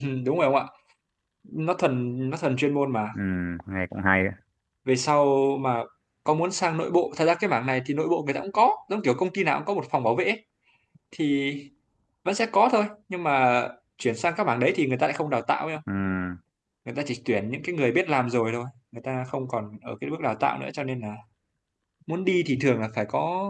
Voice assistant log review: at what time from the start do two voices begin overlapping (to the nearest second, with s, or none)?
none